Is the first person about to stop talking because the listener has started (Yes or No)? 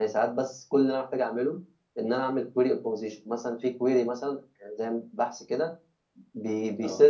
No